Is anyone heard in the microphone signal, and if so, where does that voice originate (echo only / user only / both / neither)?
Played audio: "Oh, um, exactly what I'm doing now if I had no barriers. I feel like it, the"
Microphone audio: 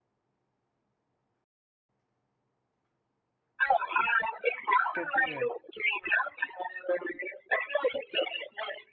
both